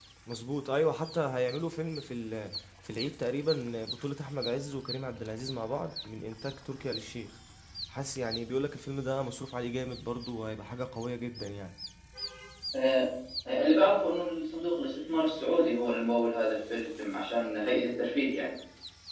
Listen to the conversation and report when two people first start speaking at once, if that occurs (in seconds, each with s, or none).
none